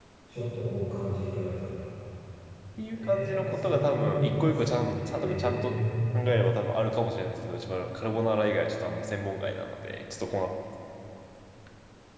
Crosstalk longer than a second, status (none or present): present